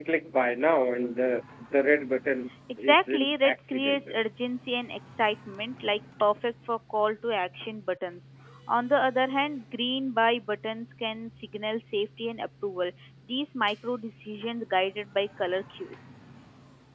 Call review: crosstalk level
present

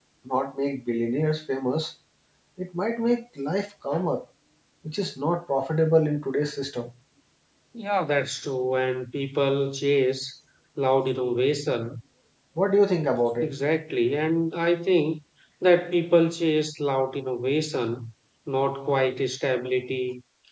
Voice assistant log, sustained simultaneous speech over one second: none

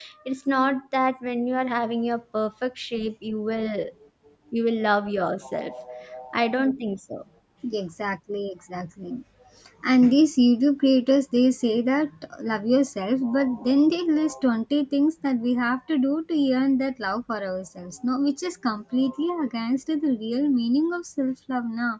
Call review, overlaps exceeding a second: none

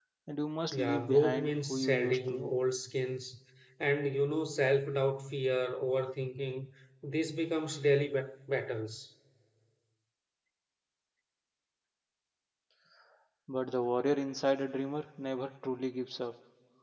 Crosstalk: present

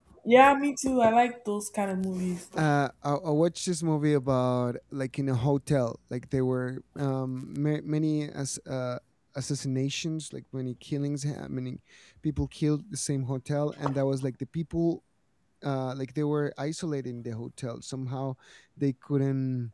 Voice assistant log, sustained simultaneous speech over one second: none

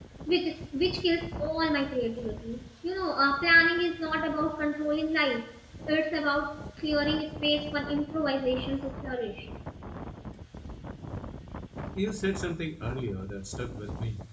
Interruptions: none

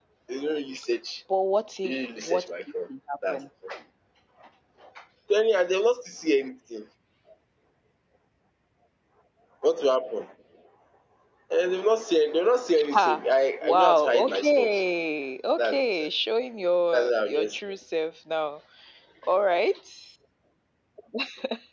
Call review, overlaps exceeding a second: present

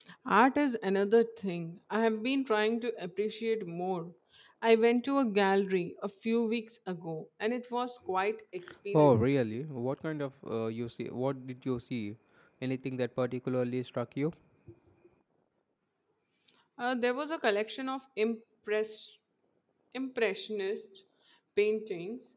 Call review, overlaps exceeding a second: none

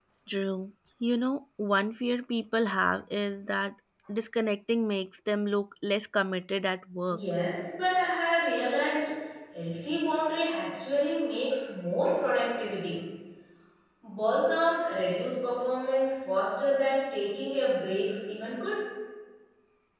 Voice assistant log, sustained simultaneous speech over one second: none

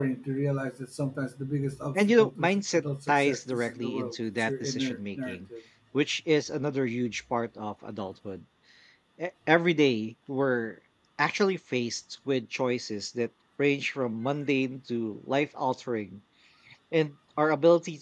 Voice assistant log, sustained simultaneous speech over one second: present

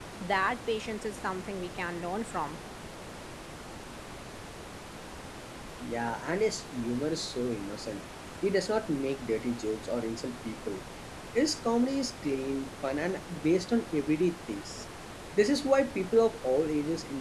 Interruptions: none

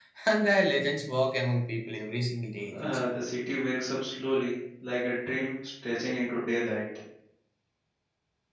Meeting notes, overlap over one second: none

